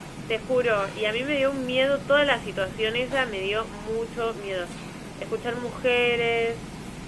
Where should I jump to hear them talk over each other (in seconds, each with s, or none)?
none